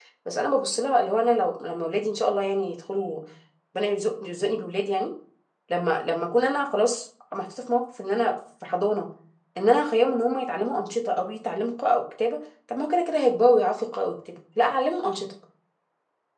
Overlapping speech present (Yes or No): No